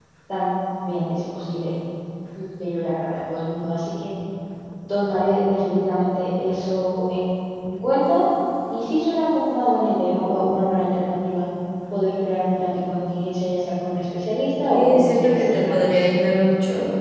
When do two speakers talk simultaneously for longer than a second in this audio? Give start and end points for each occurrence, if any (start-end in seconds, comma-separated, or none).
14.7-16.1